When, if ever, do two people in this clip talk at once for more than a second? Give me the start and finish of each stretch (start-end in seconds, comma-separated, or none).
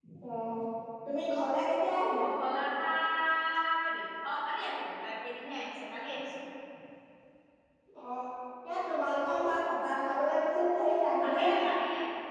none